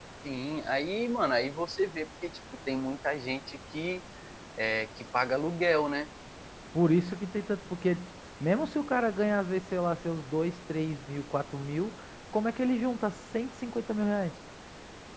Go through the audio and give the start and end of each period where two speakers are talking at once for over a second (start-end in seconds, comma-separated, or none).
none